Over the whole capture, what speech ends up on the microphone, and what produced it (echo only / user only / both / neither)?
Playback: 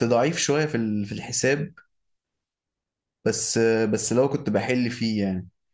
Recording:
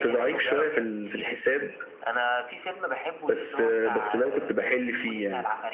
both